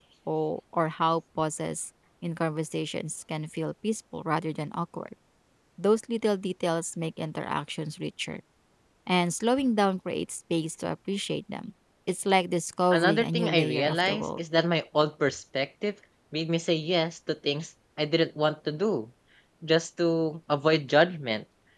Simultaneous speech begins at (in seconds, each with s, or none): 12.9 s